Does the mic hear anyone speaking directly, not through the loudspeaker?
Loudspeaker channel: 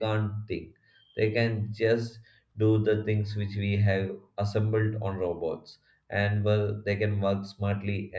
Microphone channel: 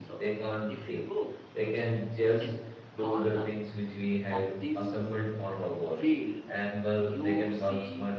Yes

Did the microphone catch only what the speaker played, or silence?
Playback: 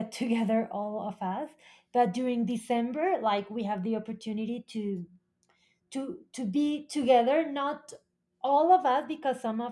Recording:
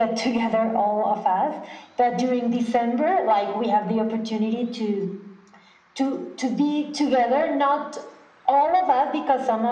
Yes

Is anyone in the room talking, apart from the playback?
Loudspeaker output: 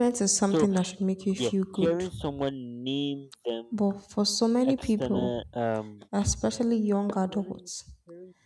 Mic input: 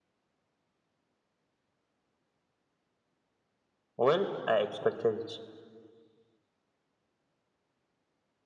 Yes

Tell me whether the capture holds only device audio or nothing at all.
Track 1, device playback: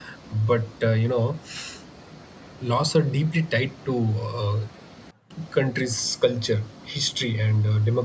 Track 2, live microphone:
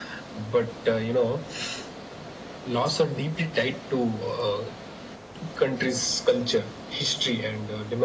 Yes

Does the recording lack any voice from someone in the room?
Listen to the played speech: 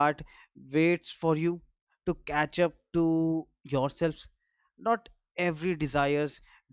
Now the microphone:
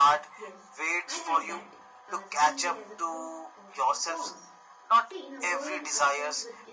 No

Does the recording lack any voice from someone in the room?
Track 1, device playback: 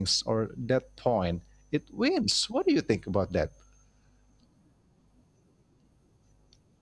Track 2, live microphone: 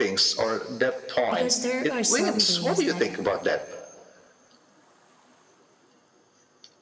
No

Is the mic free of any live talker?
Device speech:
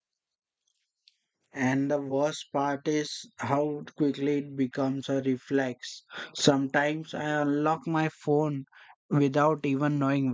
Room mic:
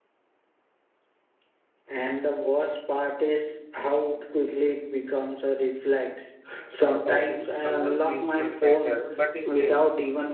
No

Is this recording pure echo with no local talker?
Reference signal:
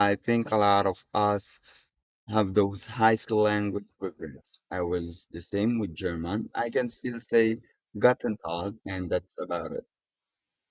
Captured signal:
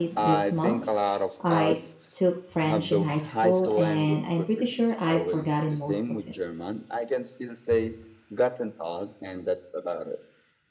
No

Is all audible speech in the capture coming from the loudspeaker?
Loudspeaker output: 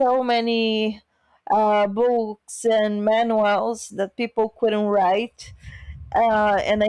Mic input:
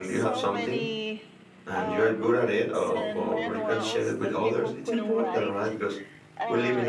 No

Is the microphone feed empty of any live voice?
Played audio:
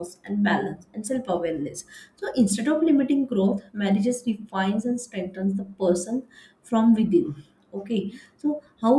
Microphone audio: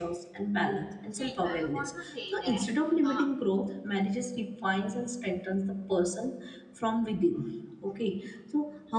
No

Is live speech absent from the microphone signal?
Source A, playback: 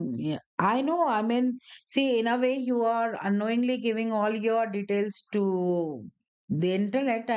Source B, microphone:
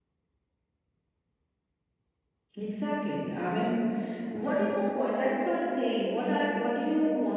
No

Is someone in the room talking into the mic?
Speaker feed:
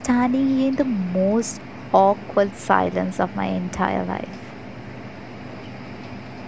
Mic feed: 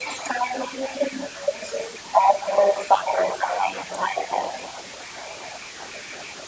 No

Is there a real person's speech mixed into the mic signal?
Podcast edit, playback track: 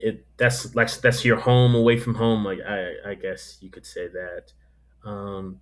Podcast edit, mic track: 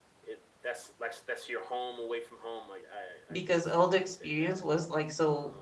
Yes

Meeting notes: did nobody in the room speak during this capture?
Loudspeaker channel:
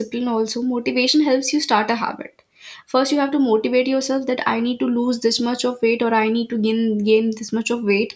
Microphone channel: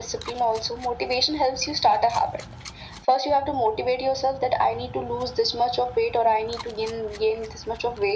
Yes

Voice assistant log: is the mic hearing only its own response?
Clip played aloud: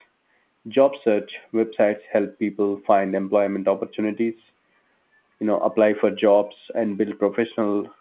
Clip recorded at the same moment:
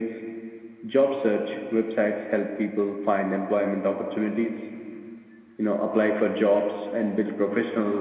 Yes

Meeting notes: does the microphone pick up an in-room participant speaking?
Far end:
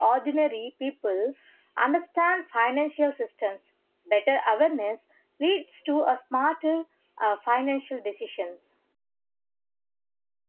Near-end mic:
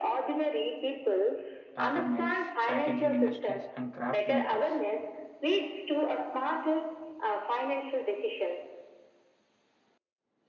Yes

